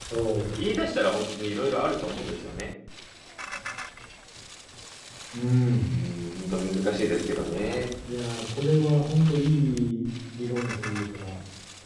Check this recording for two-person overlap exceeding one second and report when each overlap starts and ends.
none

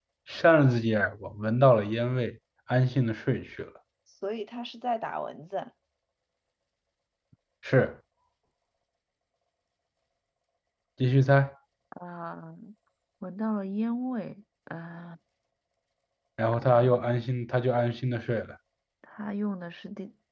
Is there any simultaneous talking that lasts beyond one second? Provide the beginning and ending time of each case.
none

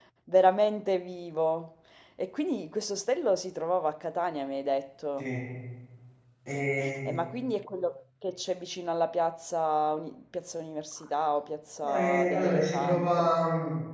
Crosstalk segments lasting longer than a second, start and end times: 11.8-13.3

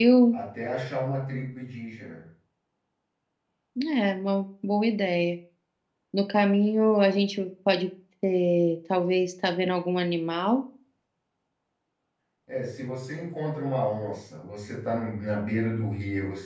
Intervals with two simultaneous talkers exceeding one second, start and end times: none

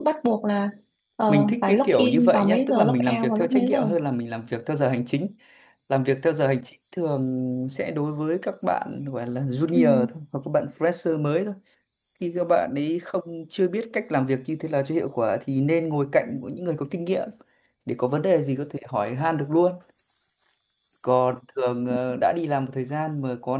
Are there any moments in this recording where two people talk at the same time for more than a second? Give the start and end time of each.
1.3-3.9

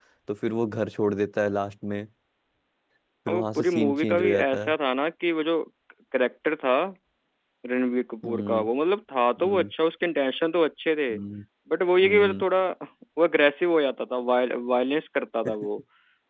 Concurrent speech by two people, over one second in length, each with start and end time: 3.3-4.7

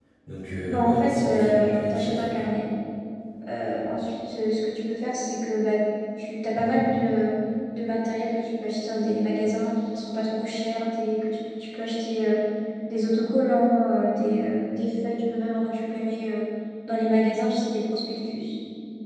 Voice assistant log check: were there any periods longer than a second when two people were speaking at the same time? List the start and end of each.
0.7-2.4

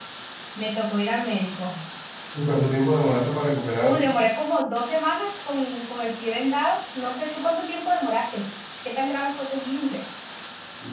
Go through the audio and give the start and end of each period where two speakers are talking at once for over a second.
none

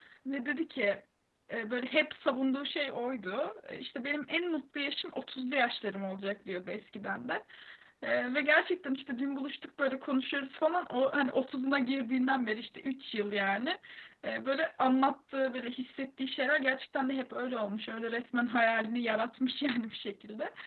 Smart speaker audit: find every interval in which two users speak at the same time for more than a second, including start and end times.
none

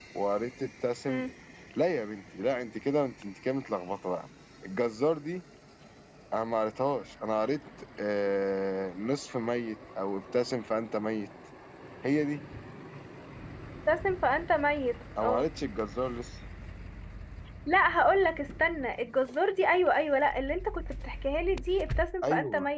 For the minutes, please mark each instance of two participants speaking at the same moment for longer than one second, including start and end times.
none

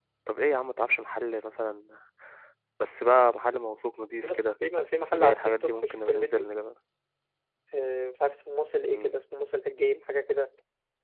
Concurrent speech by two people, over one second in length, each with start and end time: 5.1-6.5

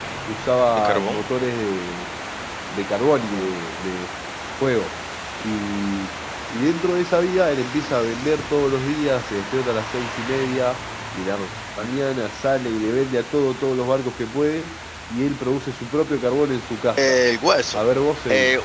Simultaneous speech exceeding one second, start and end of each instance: none

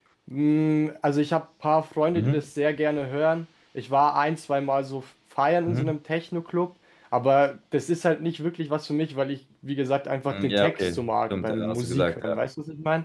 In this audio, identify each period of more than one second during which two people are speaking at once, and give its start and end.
10.3-12.4

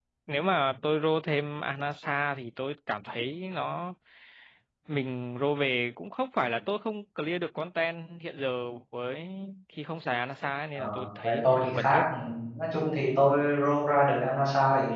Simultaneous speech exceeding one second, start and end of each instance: 10.8-12.0

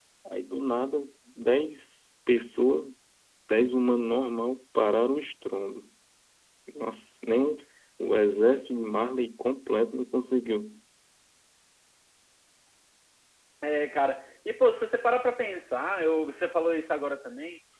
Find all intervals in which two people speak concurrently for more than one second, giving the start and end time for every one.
none

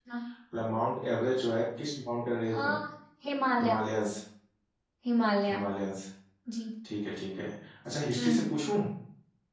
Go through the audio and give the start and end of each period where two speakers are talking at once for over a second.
none

